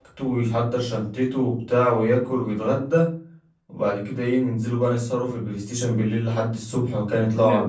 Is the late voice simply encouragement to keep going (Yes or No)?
No